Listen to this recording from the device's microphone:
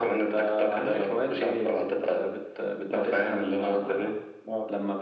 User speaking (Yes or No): No